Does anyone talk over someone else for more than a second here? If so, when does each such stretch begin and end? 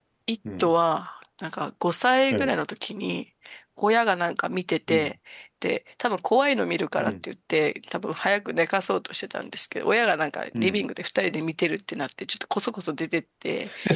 none

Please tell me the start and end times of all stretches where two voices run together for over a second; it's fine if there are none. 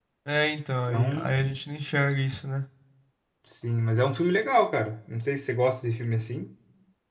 none

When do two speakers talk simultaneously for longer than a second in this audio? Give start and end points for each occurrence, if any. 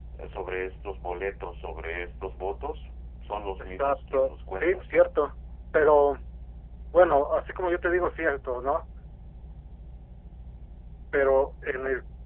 3.6-5.1

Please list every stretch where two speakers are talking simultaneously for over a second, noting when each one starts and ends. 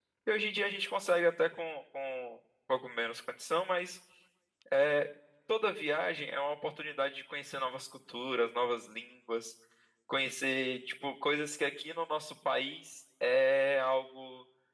none

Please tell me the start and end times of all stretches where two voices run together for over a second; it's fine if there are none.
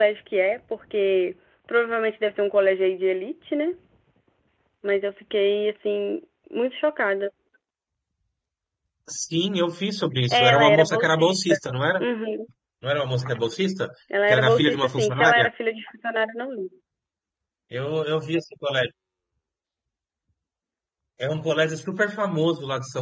10.3-11.6, 14.3-15.5

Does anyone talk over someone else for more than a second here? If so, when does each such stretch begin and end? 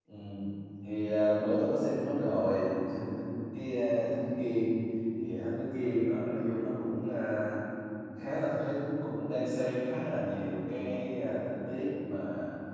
none

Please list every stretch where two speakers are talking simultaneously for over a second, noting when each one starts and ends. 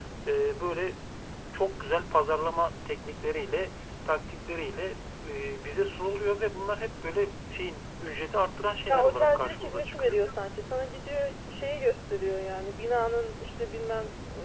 8.9-10.2

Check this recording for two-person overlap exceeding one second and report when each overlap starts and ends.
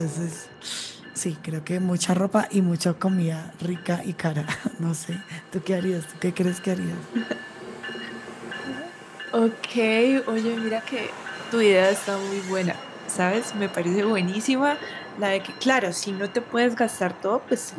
none

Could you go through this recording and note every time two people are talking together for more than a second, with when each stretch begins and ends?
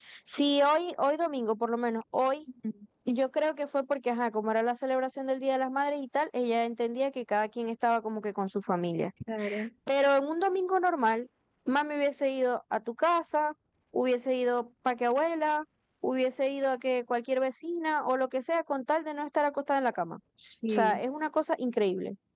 none

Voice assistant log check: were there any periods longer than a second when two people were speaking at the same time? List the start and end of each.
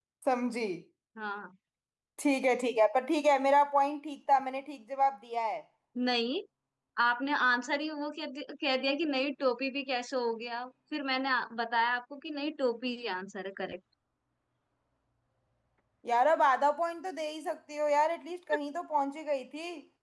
none

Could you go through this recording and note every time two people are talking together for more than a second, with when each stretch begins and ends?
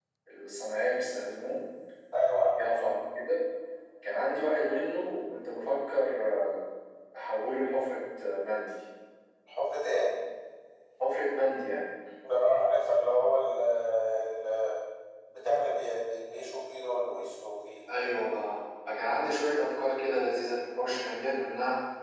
none

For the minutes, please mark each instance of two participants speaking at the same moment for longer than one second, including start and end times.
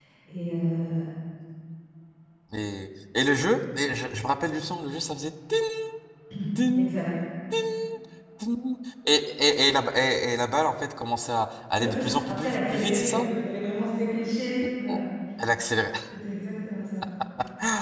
11.8-13.3

